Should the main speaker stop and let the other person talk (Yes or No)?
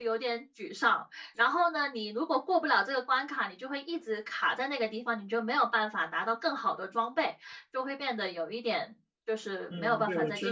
Yes